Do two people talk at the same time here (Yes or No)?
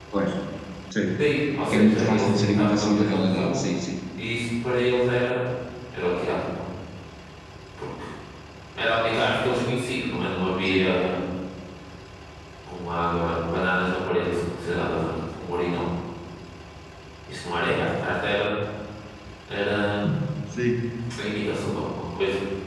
Yes